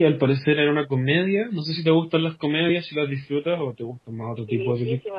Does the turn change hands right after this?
Yes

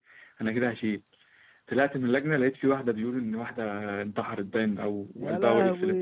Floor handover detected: No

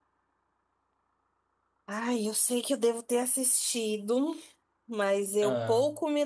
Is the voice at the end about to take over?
No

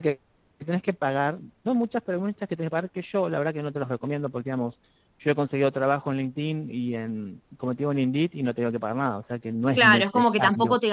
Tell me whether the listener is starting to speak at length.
Yes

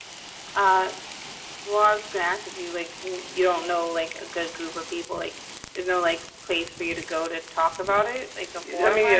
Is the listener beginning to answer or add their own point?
Yes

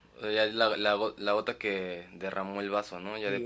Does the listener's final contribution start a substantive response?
Yes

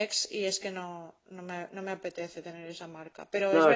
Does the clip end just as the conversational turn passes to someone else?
No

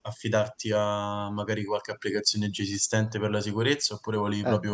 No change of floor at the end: No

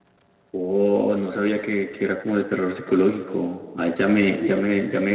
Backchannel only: Yes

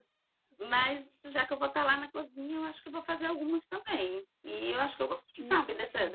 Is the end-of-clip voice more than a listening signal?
No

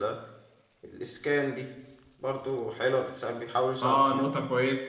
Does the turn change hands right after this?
Yes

